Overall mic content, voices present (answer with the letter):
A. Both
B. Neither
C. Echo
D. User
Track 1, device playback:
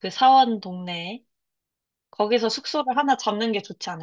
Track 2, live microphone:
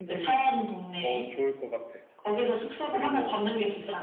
A